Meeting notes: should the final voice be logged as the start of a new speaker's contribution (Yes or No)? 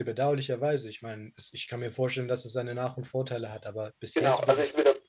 Yes